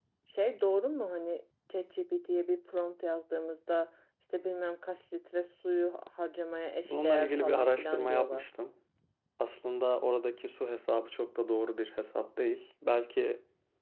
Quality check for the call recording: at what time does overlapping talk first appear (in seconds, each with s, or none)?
6.8 s